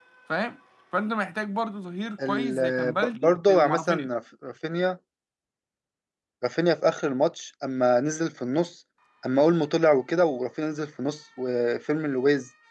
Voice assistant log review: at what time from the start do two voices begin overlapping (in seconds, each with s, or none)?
2.2 s